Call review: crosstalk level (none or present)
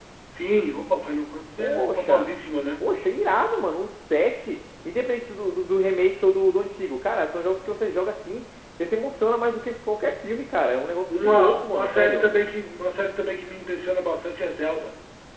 present